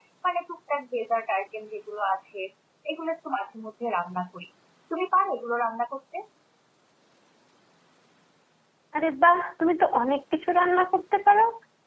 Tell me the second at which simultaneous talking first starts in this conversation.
none

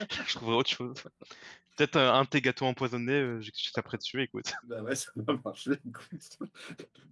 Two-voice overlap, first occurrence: none

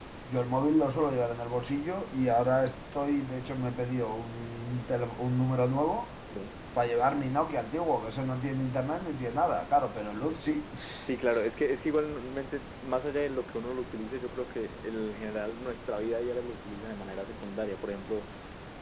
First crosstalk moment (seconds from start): none

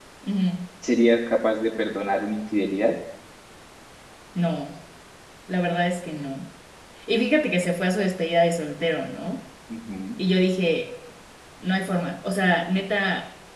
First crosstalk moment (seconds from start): none

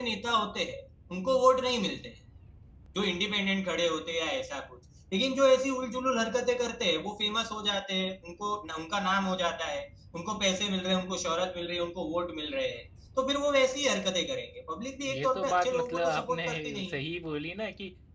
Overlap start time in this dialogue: 15.1 s

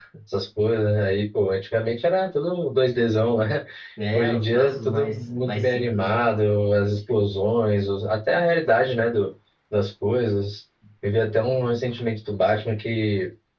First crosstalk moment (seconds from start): 4.1 s

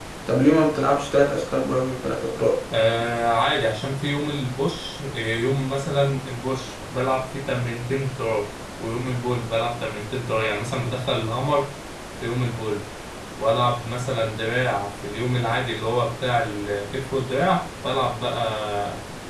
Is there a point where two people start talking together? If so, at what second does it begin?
none

